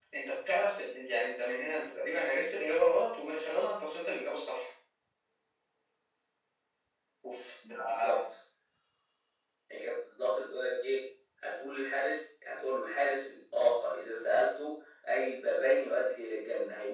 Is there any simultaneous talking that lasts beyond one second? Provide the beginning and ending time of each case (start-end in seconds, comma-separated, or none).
none